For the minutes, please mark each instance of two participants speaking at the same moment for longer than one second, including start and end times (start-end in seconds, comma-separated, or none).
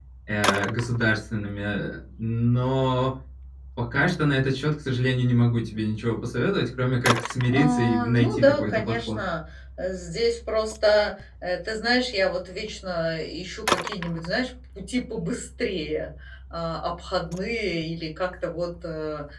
7.5-9.2